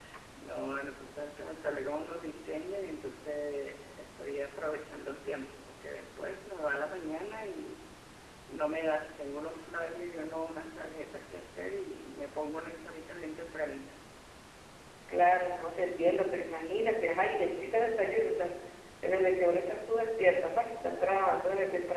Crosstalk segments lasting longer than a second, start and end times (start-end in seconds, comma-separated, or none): none